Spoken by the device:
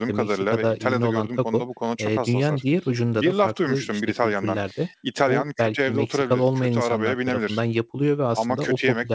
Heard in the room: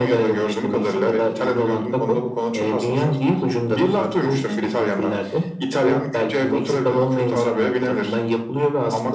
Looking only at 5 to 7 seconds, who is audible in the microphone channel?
echo only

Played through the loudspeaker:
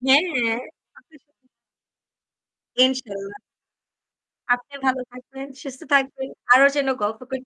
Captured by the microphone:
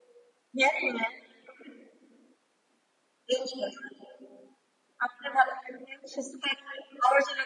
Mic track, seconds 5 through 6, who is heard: echo only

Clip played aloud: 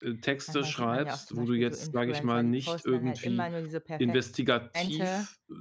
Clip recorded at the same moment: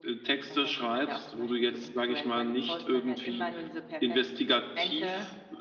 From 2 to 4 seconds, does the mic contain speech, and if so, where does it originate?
echo only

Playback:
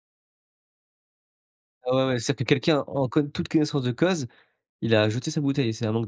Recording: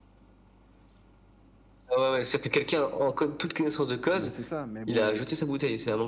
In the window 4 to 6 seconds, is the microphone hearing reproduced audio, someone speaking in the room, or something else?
both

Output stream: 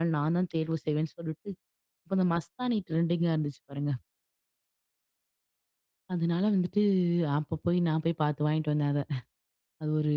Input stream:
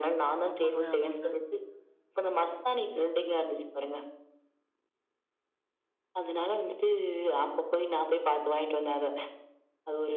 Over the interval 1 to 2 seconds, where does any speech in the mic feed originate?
both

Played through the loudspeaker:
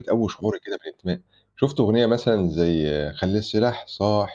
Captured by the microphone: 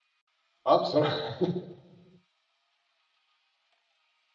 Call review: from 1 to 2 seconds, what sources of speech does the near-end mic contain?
user only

